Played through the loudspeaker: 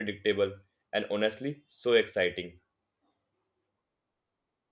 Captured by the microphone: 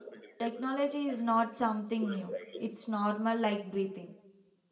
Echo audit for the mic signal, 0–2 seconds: both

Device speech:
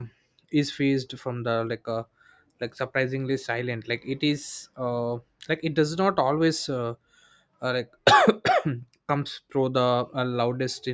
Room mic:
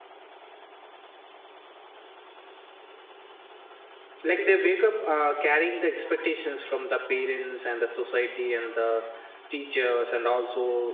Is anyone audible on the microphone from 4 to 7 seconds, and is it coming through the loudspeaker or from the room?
user only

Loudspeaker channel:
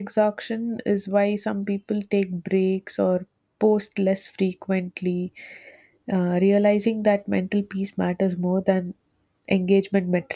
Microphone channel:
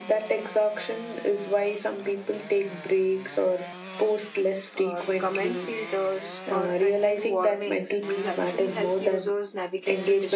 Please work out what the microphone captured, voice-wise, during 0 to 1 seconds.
echo only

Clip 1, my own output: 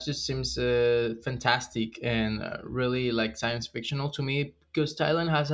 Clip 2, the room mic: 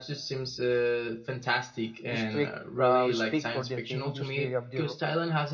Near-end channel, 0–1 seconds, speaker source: echo only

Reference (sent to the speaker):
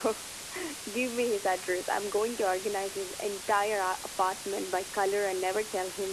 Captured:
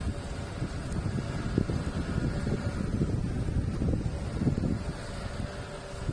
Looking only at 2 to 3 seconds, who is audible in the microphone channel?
neither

